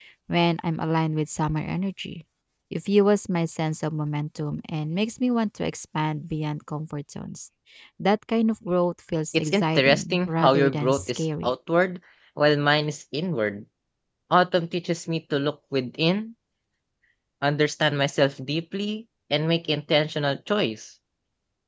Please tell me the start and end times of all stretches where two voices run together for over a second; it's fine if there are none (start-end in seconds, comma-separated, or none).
9.3-11.5